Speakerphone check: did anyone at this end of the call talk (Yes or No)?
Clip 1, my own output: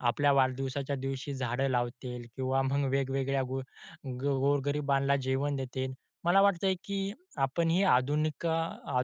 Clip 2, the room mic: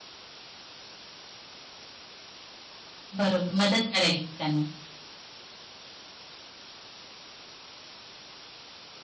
Yes